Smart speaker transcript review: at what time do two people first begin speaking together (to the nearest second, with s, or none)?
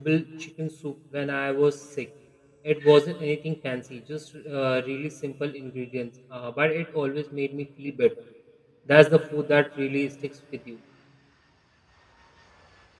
none